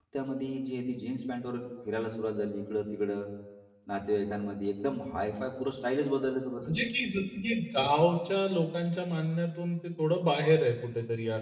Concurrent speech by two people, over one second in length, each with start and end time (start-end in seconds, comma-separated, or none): none